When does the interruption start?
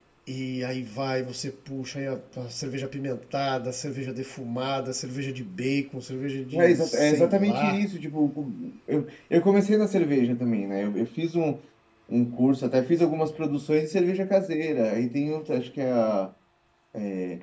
7 s

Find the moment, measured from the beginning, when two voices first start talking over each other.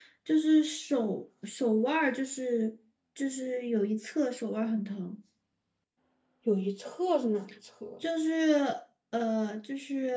none

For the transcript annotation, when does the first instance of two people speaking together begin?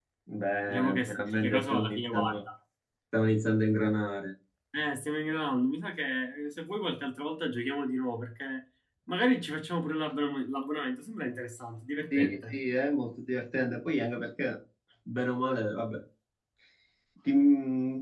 1 s

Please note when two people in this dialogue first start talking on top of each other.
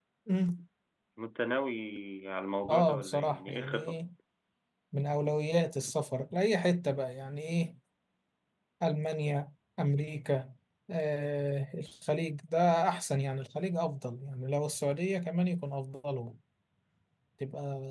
3 s

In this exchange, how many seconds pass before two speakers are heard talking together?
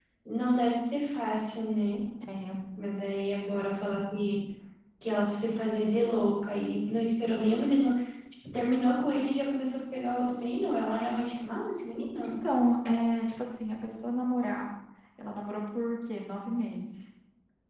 none

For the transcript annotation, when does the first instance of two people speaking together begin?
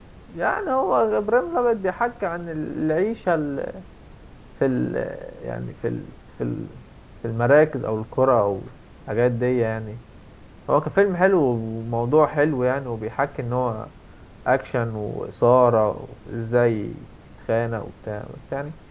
none

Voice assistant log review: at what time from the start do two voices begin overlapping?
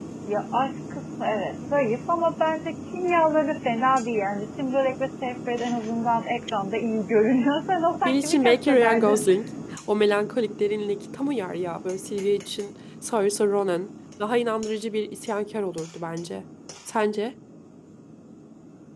8 s

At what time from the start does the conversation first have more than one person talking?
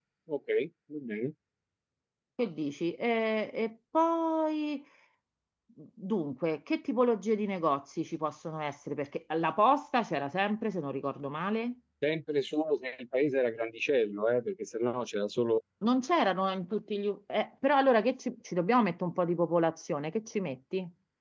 none

